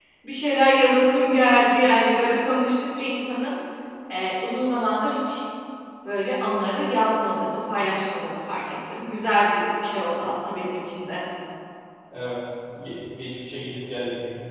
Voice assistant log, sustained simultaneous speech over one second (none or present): none